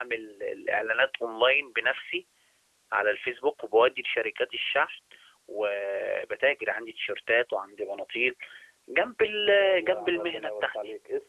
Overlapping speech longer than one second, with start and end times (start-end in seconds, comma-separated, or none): 9.4-10.8